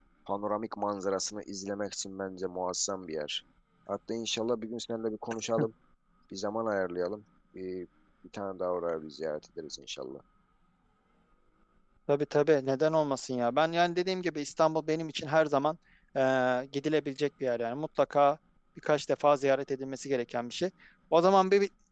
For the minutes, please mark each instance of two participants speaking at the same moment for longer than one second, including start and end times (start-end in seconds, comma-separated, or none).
none